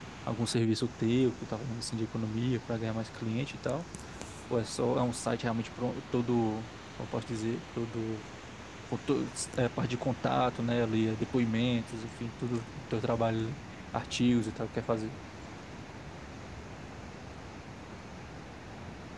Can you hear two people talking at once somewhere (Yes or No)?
No